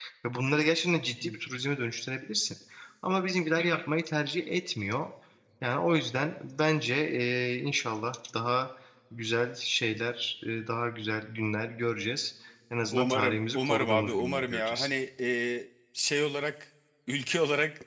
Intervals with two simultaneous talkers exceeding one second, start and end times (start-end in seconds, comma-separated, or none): 12.9-14.9